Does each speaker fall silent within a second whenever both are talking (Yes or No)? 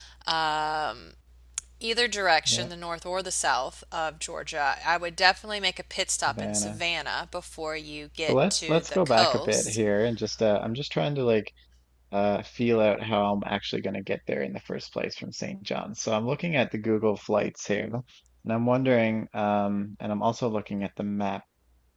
No